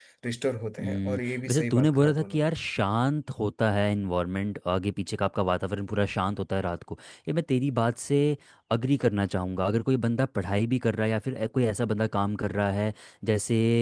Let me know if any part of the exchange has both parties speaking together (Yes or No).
Yes